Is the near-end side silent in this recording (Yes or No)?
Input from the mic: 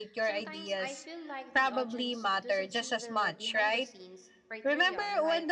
No